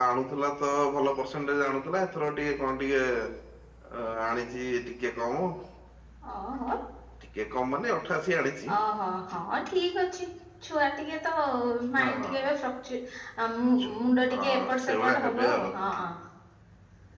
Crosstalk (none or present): present